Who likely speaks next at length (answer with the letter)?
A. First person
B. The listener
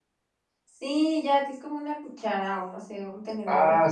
B